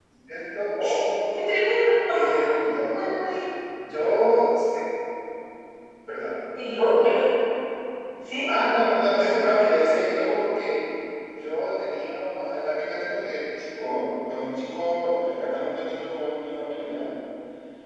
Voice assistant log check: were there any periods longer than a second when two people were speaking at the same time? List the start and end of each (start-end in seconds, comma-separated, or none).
none